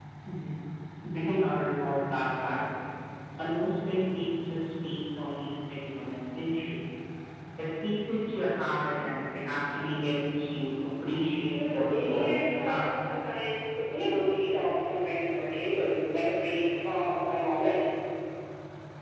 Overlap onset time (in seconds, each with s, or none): 11.5 s